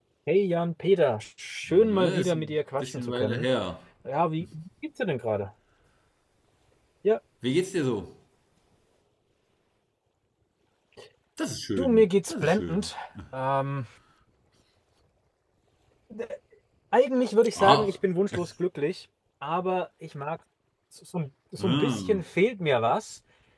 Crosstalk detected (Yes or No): Yes